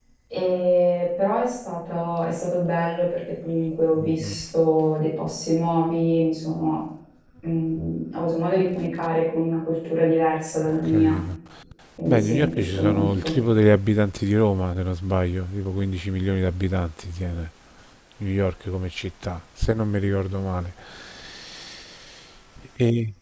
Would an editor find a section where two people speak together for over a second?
Yes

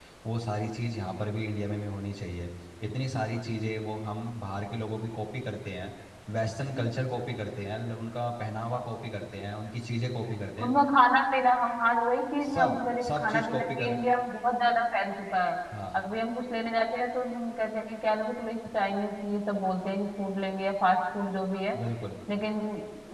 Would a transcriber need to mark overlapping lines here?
Yes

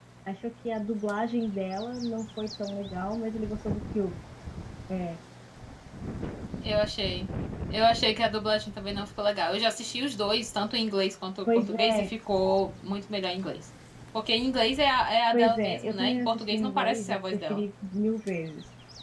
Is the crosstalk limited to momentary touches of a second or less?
No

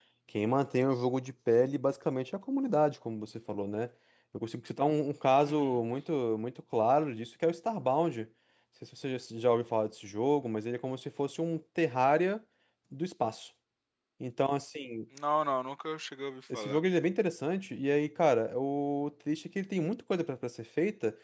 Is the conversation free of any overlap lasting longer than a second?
Yes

